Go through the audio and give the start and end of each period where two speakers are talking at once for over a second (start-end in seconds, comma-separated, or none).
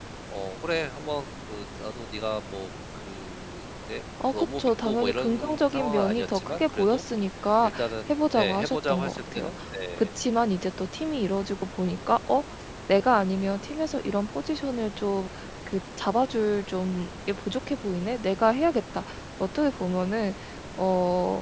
4.3-7.0, 8.1-9.5